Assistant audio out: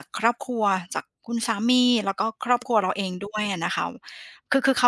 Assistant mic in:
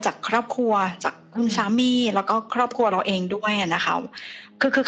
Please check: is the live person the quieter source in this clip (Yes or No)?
Yes